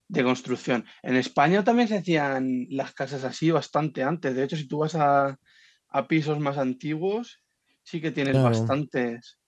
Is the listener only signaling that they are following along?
Yes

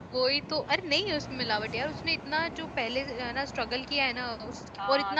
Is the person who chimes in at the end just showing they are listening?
No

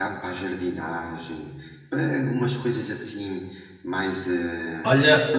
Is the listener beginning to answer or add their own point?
Yes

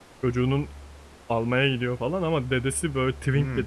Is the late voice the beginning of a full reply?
Yes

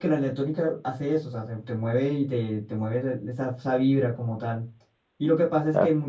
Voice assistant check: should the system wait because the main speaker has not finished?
Yes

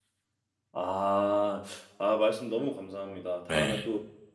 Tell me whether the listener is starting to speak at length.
No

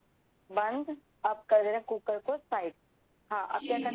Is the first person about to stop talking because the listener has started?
Yes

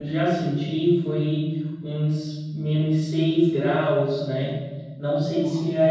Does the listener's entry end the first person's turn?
No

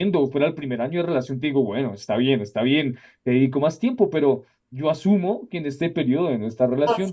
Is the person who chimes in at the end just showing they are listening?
Yes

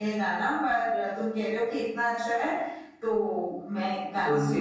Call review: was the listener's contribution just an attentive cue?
No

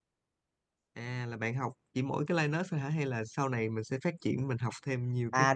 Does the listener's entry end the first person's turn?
Yes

